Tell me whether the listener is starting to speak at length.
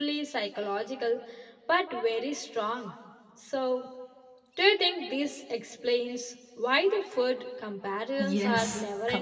Yes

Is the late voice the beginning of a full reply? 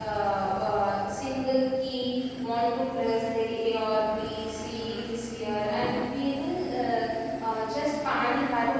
Yes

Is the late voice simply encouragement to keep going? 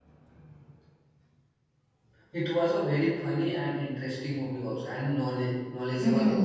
No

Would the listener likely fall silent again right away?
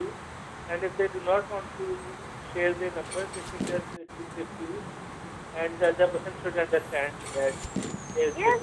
No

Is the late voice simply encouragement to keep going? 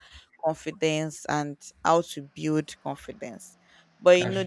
Yes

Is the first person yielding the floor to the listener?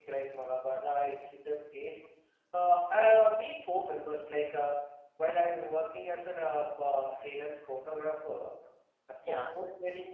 No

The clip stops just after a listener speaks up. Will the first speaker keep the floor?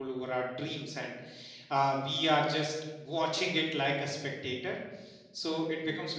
Yes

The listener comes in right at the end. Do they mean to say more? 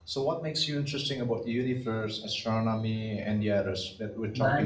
Yes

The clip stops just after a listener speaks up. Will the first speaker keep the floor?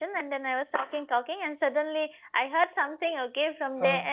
Yes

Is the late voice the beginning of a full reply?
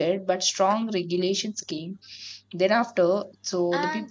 No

